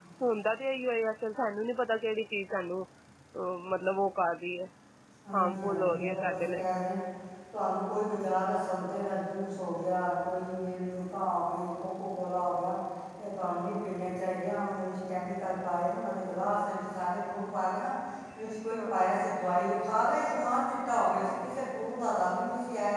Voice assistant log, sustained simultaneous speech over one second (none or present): present